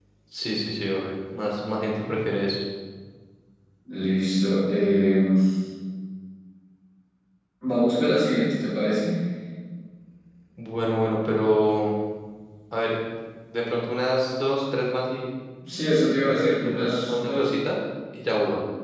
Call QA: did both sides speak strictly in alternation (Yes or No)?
No